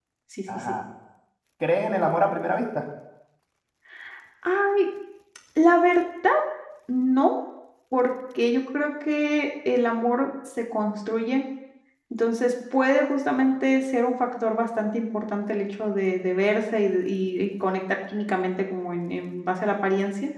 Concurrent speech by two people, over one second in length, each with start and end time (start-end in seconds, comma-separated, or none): none